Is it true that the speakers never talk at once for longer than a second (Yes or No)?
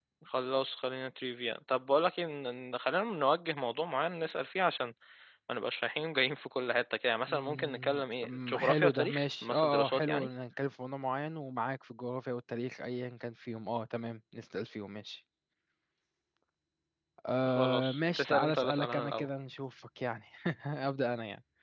No